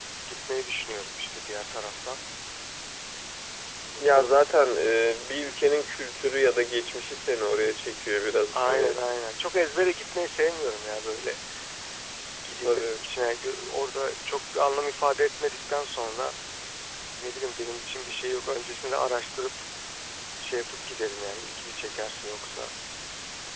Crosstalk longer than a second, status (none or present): none